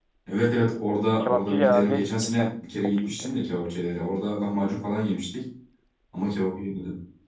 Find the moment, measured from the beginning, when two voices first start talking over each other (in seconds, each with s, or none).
1.2 s